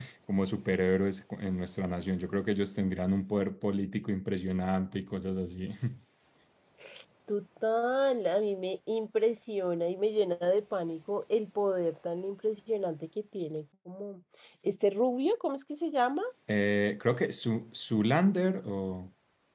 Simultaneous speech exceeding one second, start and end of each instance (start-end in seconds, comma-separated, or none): none